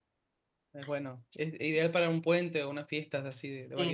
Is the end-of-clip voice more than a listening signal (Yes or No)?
Yes